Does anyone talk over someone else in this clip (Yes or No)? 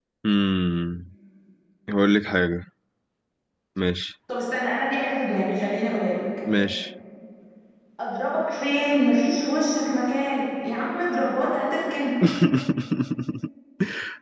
No